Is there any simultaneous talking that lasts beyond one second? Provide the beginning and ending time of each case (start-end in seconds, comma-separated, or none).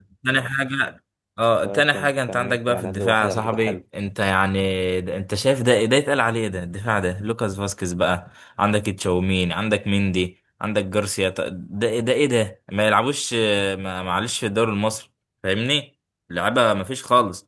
1.6-3.8